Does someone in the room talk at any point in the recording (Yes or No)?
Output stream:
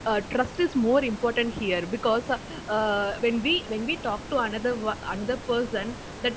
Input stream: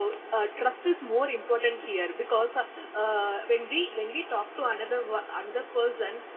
No